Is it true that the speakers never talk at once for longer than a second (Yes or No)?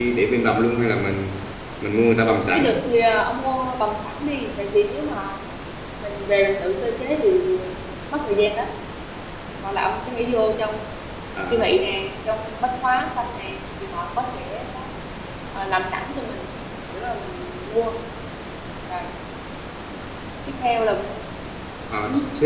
Yes